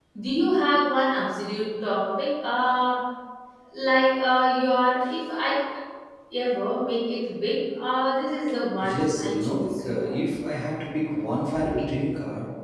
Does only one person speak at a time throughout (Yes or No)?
No